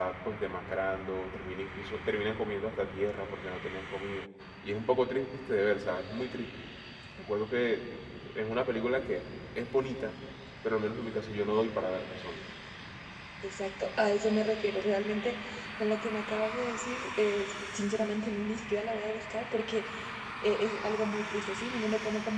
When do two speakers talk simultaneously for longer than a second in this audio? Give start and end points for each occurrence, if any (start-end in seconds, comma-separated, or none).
none